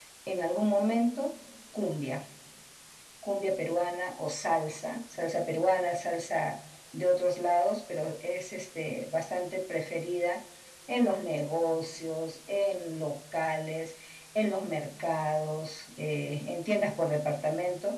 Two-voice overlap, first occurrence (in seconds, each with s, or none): none